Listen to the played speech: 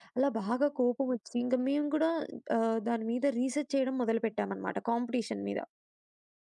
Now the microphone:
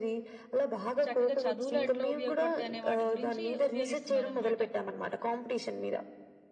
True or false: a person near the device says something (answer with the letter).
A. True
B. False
A